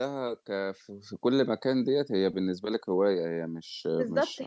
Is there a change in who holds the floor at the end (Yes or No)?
Yes